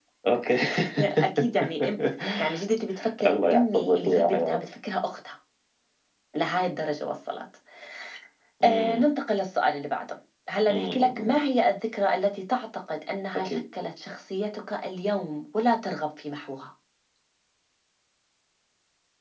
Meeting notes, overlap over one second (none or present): present